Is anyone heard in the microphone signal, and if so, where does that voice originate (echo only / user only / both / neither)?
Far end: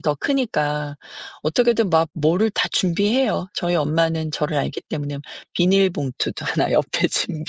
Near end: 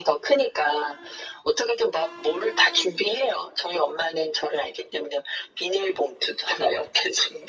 echo only